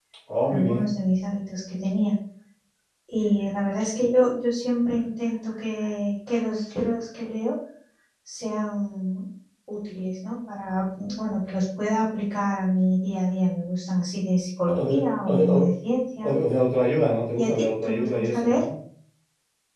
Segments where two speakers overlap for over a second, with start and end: 17.4-18.6

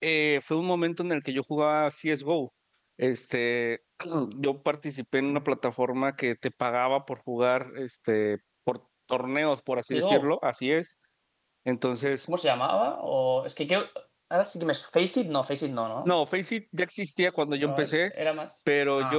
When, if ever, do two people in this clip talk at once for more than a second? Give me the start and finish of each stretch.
none

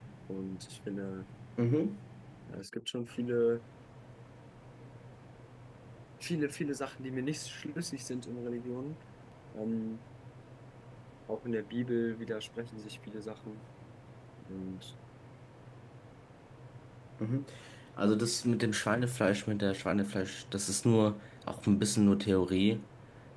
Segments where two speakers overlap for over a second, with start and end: none

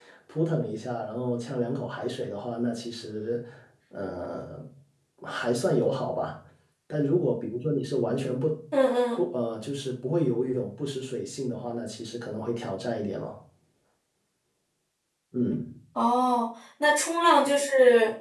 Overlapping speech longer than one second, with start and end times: none

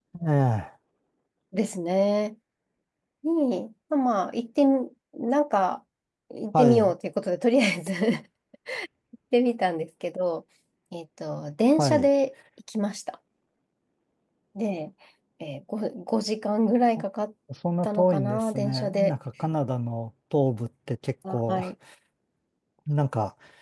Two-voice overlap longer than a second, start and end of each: 17.8-19.1

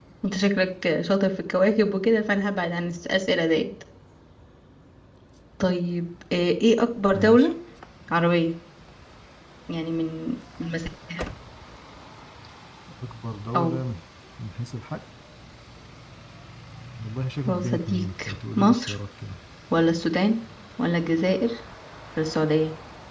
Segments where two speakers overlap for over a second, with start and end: 17.5-18.9

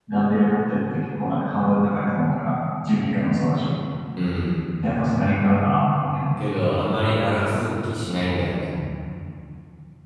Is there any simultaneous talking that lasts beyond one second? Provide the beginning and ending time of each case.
none

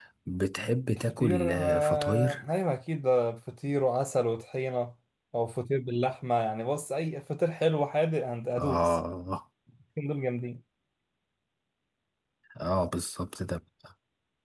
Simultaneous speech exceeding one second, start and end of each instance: 0.9-2.4

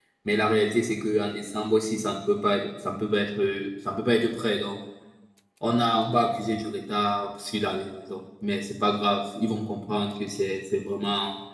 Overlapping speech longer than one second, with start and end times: none

